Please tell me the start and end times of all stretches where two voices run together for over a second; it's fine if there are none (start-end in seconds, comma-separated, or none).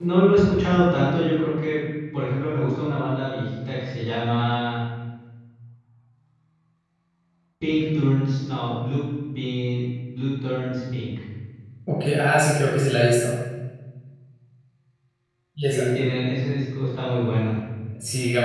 none